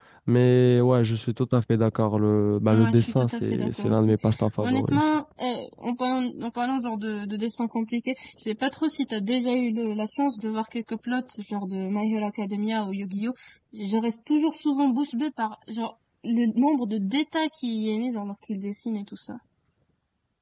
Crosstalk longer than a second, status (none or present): present